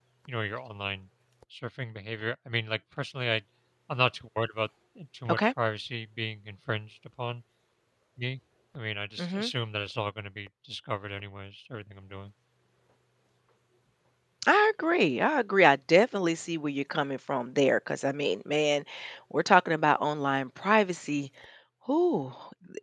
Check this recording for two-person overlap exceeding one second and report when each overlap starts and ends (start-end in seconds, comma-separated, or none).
none